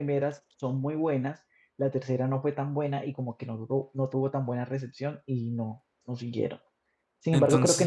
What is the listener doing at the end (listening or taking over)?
listening